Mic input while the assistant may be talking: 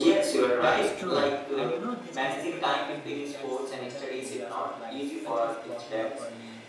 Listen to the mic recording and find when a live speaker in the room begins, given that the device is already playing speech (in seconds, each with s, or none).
0.6 s